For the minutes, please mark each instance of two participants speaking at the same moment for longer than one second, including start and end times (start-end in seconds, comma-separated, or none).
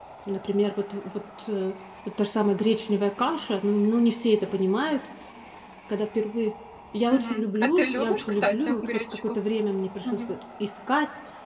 7.1-9.3